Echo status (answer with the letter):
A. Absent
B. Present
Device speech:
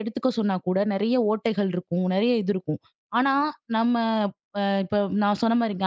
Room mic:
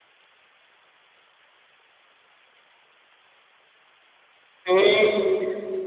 A